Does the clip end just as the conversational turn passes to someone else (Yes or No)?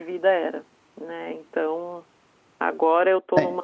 No